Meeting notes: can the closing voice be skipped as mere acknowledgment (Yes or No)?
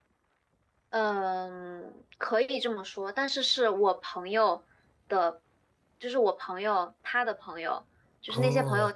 Yes